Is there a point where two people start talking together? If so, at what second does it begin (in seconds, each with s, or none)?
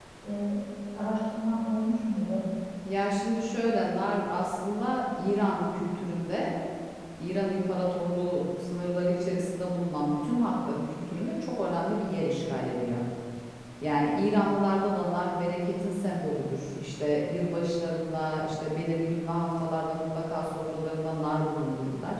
none